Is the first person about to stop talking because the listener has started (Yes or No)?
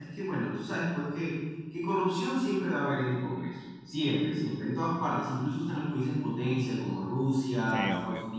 No